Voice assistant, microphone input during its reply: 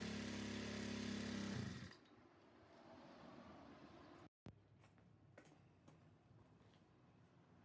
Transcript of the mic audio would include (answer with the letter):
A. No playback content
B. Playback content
A